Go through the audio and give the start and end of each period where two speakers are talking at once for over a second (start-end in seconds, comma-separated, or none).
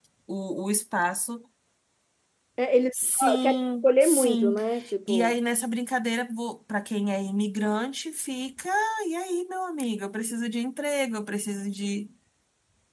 3.2-4.5